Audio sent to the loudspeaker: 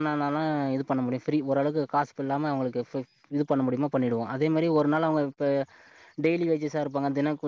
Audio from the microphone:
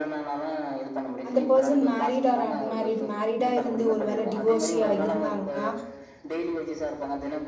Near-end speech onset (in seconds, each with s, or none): 1.3 s